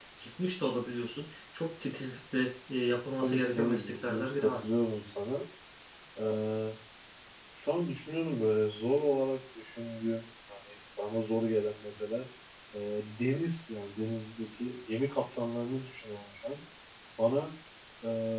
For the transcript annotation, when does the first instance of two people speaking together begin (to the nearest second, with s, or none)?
3 s